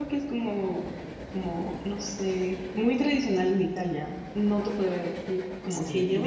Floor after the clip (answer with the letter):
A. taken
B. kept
A